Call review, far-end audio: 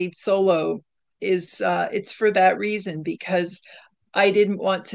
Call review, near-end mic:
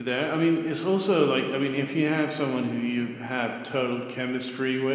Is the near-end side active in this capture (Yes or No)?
Yes